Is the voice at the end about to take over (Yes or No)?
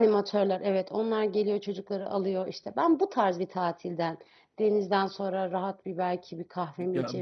Yes